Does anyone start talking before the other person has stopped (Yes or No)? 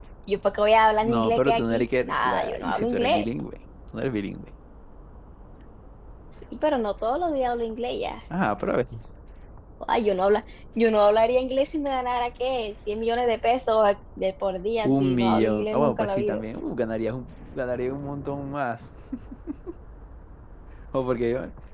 Yes